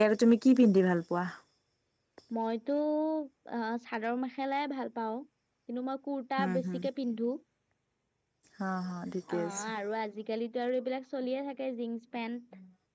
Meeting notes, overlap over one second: none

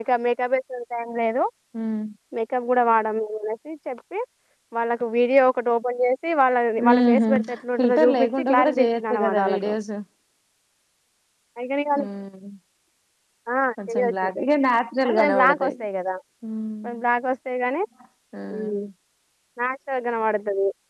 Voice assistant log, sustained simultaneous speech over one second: present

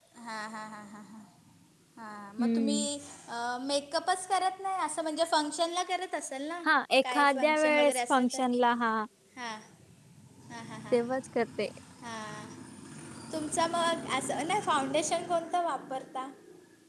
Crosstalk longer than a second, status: present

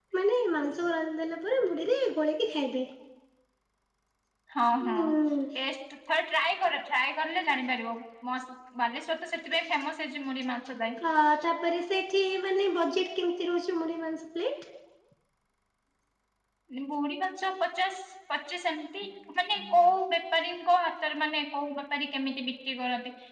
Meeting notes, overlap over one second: none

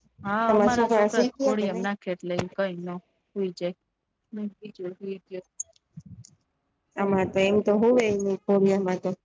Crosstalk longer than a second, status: present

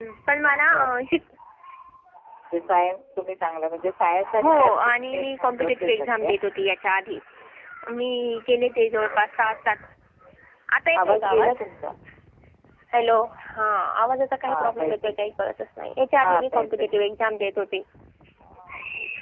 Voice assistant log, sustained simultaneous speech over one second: present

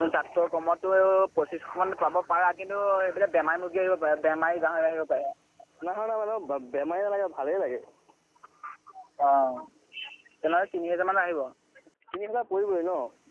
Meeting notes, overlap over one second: none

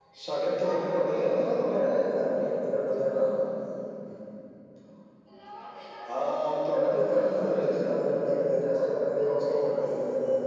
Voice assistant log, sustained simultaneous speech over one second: present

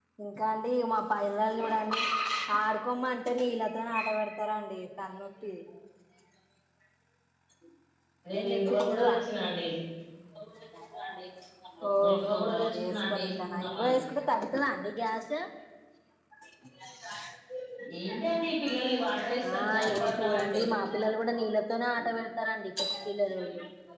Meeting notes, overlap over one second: present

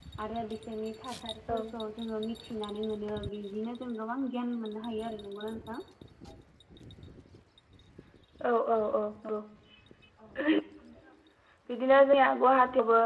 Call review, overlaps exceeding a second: none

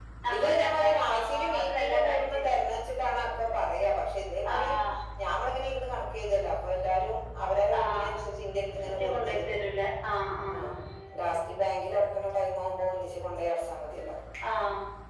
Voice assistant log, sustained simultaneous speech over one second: present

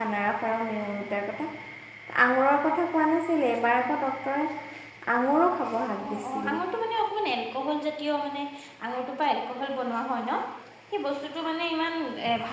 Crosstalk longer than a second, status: none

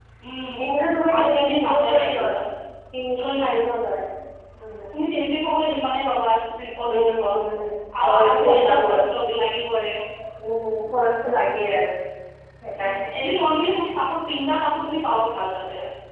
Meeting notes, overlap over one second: present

